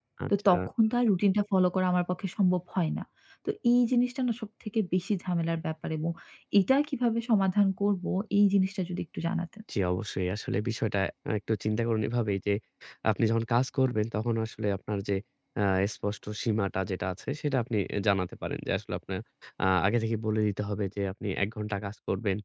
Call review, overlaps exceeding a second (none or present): none